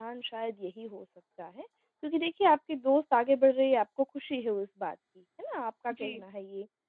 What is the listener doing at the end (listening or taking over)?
listening